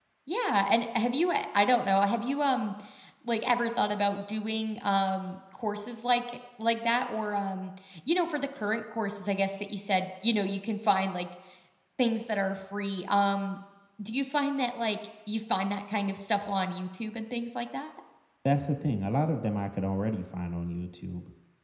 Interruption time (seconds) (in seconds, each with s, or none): none